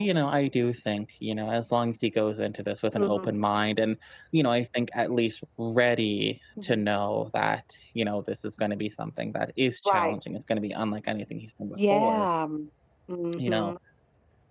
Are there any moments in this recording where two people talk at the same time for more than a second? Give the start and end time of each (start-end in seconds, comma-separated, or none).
none